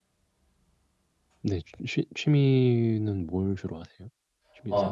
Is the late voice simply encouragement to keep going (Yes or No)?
No